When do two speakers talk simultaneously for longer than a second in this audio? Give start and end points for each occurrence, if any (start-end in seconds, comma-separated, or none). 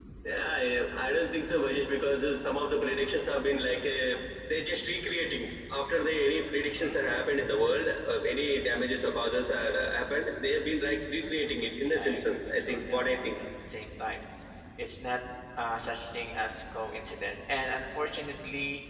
11.2-13.4